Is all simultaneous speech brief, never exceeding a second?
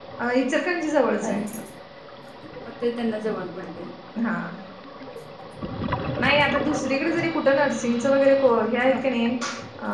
Yes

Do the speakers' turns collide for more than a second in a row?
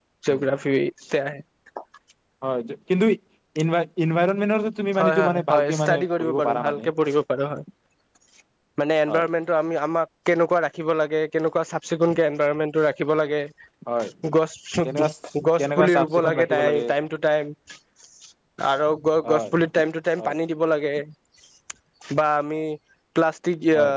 Yes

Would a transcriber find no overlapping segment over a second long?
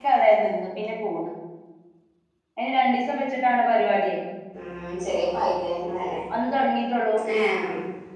Yes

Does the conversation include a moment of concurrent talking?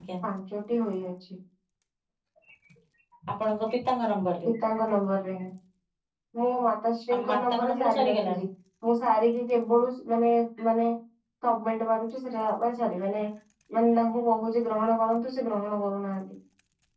Yes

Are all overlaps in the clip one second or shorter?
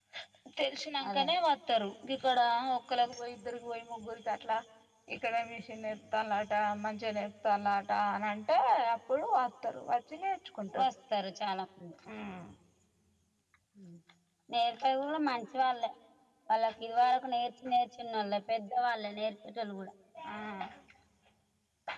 Yes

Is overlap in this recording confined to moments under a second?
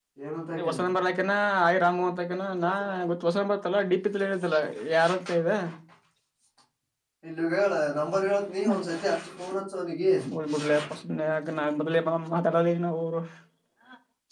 Yes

